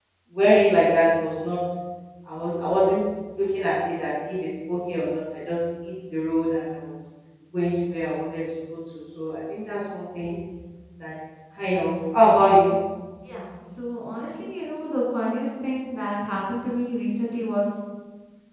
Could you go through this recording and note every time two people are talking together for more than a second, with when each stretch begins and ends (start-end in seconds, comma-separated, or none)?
none